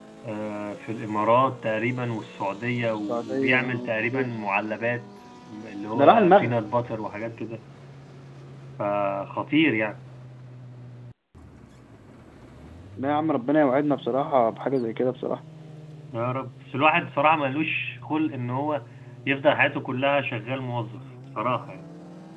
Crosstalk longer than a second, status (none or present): present